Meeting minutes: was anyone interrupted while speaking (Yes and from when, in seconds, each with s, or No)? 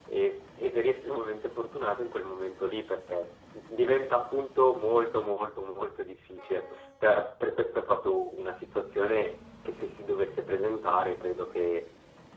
No